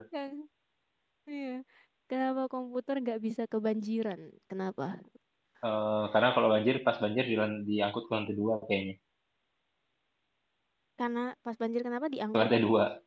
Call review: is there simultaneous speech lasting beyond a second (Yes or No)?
No